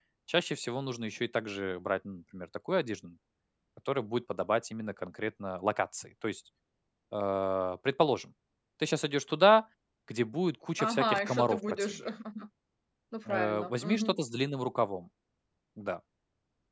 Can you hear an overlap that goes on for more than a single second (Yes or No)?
Yes